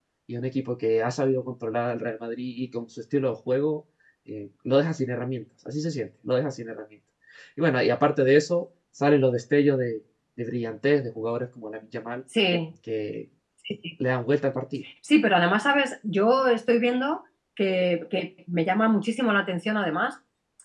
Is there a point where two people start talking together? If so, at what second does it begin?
none

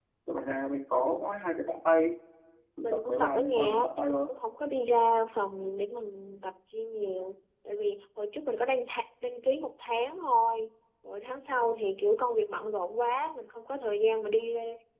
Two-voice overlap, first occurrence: 2.8 s

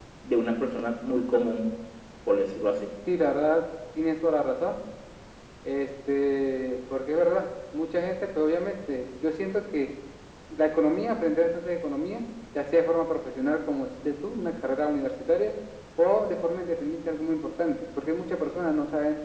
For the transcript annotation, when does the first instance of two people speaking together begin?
none

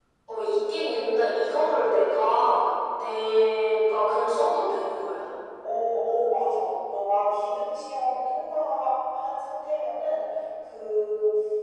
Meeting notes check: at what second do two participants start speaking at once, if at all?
none

